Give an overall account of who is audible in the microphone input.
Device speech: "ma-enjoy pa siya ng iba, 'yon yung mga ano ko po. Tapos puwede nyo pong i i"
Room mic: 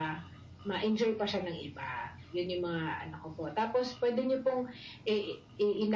echo only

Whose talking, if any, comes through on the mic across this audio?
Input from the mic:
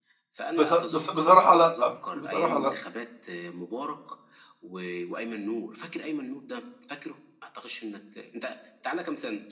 both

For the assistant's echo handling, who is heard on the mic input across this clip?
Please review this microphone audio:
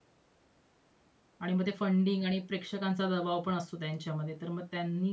user only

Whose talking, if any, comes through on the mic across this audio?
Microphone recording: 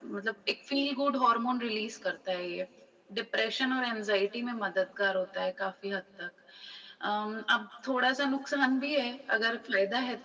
echo only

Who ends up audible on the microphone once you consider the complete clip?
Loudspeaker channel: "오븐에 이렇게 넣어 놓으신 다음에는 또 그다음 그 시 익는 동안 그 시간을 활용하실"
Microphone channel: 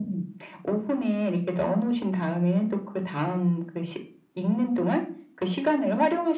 echo only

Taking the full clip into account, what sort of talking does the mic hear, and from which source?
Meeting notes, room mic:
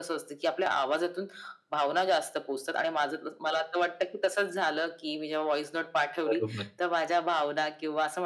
both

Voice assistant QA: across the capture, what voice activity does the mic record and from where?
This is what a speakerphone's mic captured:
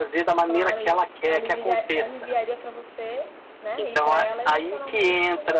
both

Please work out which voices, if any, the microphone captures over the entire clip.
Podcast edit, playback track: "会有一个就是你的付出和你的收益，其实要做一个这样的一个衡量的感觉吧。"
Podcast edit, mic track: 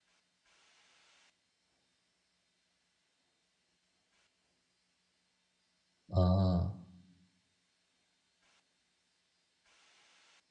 user only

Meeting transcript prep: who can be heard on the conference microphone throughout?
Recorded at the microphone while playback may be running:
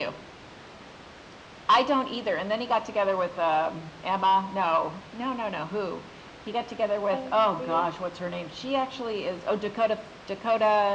both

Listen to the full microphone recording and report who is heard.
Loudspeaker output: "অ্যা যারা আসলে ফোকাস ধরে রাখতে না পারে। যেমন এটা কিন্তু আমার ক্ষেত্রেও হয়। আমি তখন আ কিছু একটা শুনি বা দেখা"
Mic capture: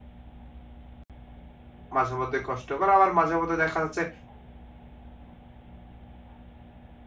user only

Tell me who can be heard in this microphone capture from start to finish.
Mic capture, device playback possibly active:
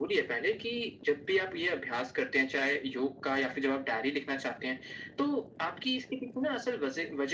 echo only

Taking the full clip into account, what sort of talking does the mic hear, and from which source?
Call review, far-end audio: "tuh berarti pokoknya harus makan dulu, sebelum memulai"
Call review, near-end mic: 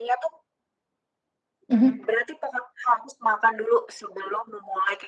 both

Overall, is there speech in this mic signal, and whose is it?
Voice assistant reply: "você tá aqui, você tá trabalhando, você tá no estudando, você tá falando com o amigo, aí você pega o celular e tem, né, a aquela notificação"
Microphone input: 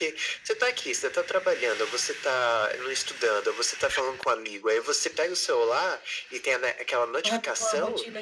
both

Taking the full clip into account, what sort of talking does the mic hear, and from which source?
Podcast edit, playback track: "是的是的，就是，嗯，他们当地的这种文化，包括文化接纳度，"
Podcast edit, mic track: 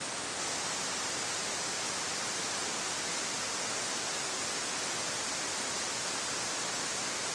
neither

